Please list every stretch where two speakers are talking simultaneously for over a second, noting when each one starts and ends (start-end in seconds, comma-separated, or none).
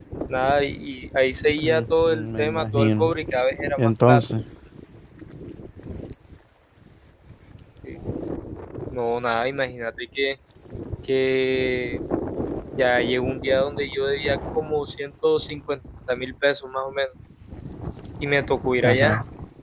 1.6-3.1